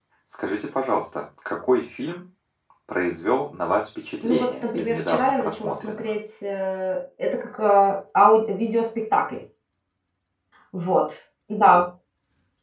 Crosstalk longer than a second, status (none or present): present